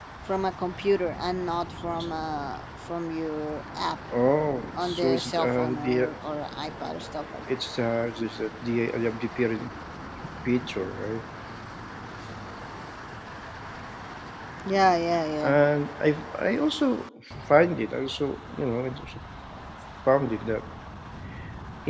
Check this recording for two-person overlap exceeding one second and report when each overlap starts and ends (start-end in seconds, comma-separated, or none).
4.8-6.1